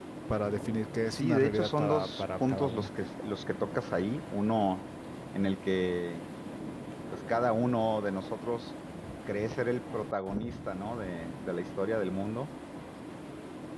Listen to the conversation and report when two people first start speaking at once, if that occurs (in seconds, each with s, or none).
1.0 s